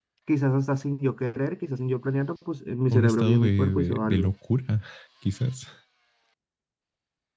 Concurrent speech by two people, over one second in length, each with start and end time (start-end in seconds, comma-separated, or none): 2.9-4.3